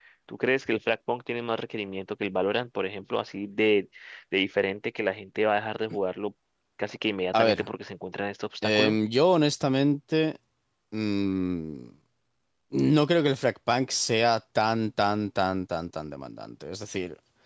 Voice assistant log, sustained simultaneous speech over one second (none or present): none